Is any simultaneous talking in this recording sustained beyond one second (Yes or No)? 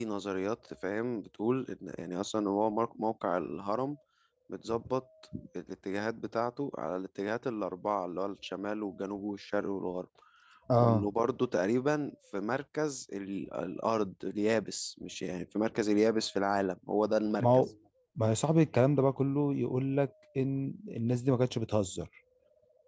No